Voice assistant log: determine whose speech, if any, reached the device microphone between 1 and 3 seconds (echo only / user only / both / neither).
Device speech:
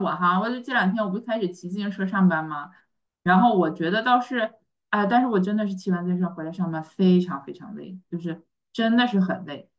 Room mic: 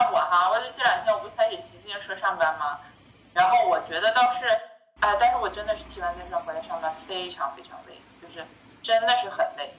echo only